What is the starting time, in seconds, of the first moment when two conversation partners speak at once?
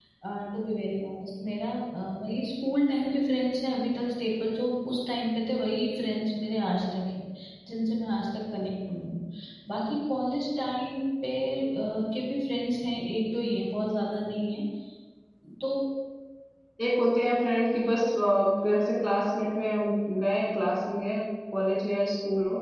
none

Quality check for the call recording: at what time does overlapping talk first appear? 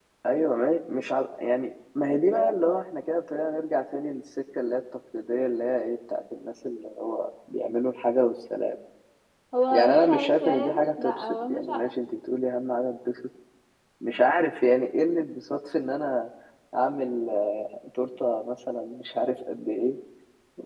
10 s

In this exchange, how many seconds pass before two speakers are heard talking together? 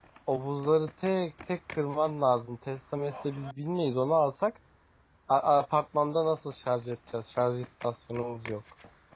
none

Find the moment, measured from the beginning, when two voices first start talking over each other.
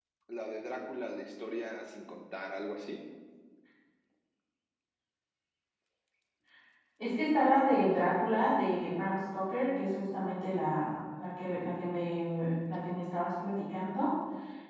none

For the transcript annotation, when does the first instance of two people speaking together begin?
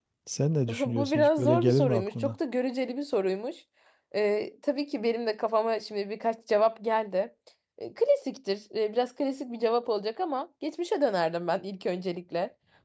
1 s

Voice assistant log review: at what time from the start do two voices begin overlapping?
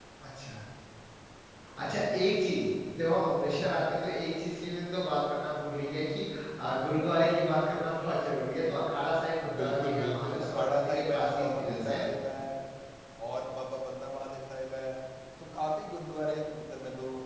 9 s

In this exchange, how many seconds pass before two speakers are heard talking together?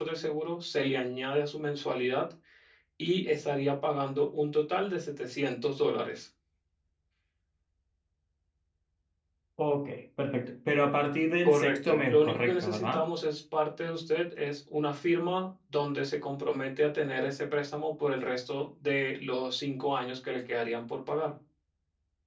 11 s

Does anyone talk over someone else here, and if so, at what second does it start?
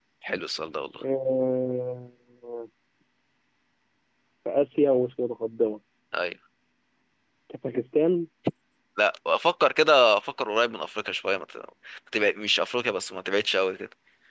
none

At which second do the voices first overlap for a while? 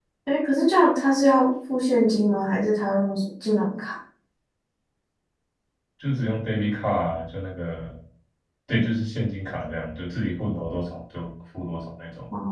none

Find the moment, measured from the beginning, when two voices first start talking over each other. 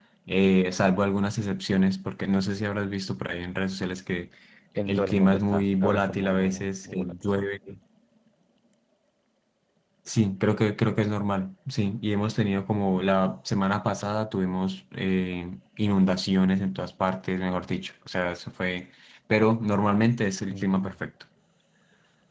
5 s

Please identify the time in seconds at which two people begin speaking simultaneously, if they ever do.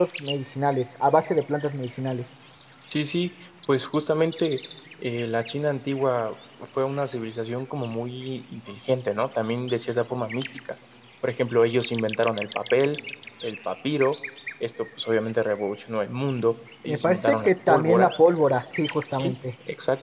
17 s

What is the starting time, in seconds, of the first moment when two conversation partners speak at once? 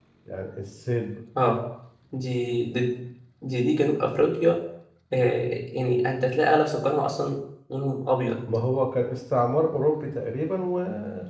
none

